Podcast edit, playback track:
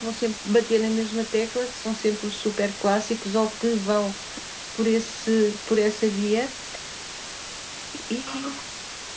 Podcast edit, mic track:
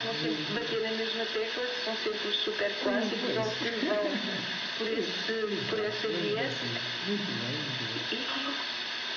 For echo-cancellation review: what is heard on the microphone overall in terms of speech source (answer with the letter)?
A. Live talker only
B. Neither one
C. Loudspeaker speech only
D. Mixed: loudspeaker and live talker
D